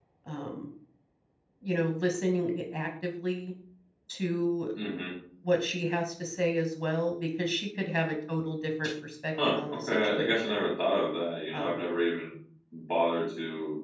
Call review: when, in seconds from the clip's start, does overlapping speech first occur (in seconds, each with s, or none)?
9.4 s